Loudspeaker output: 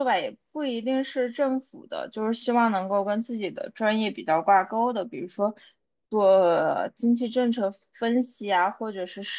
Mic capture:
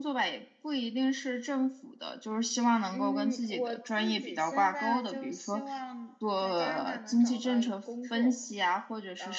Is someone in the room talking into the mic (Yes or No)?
Yes